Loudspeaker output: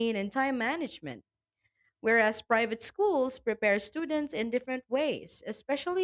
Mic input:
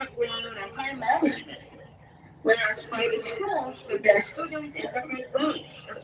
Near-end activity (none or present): none